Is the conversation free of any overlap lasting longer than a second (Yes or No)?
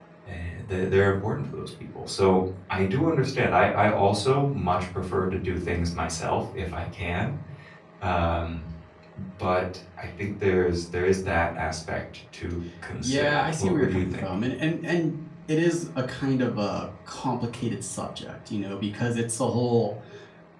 No